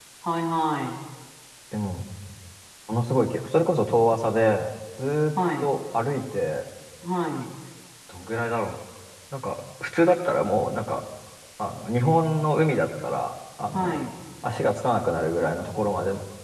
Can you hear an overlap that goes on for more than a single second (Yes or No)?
No